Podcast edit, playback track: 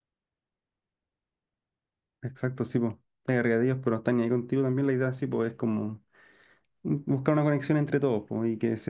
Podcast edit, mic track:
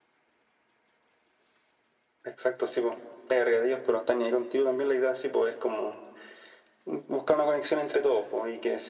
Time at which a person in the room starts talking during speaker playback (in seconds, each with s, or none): none